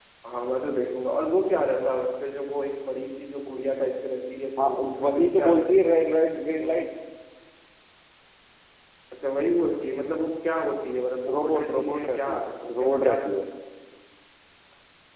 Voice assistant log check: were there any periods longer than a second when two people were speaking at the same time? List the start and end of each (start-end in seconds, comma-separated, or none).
4.6-5.9, 11.3-13.2